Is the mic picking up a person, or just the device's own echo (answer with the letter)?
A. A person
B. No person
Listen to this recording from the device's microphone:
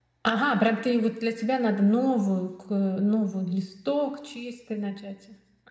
B